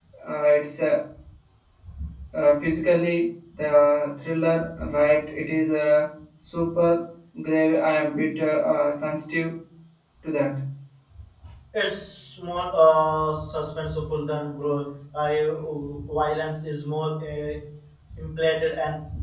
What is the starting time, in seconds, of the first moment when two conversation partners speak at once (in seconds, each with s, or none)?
none